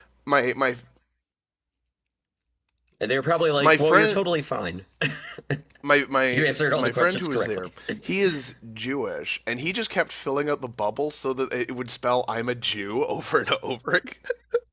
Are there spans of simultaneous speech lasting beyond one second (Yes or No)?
Yes